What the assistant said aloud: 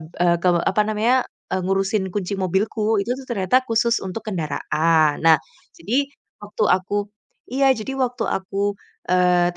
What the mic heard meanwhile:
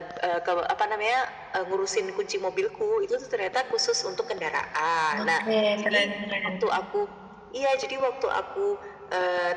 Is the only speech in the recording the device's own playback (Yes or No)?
No